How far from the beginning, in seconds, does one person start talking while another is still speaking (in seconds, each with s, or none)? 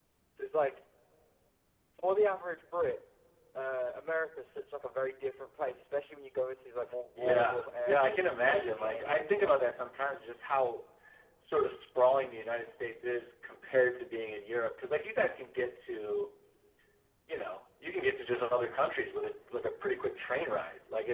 7.2 s